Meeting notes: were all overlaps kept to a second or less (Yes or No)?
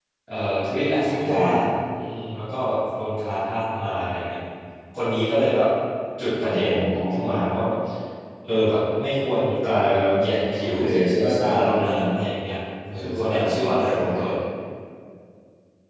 No